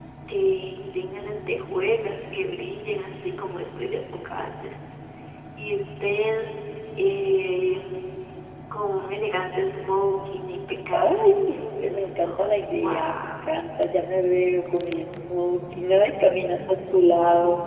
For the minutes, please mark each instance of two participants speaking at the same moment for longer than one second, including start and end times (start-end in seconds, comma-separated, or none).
10.9-13.5